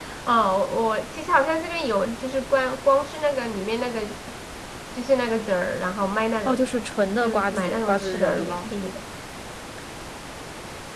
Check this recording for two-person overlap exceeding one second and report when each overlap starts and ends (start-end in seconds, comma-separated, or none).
7.2-8.6